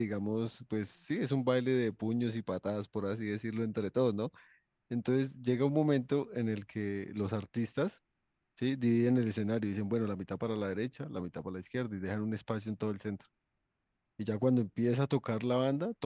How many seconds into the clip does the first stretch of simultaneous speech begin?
none

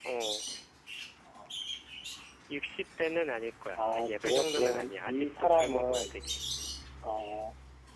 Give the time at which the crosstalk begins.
3.8 s

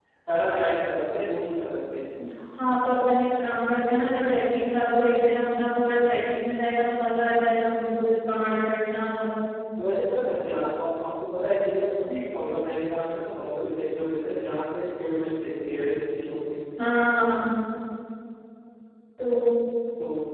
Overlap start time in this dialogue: none

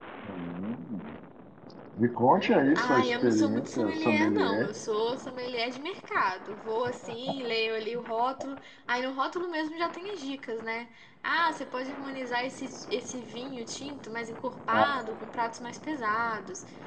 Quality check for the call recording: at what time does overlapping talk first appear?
2.7 s

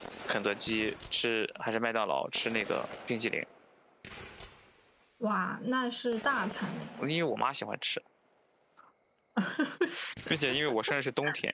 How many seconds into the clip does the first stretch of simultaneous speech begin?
none

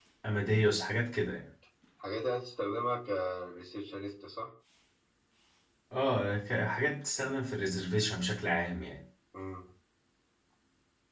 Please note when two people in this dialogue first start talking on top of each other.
none

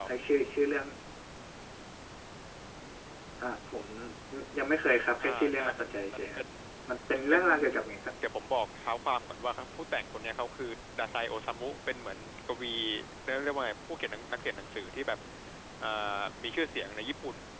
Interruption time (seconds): 5.2 s

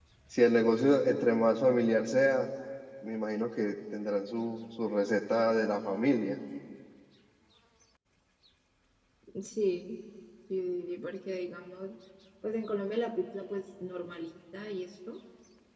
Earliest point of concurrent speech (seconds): none

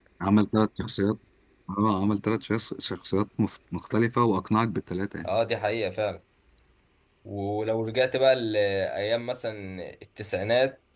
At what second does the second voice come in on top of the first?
none

